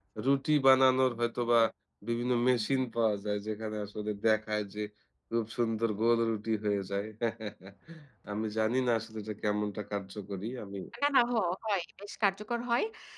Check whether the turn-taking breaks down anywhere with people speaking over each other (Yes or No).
No